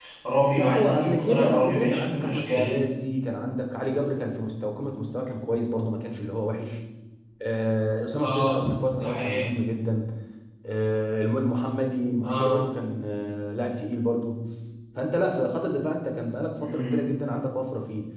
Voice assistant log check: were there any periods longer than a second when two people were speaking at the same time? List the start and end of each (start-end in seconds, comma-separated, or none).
0.5-2.7, 8.2-9.4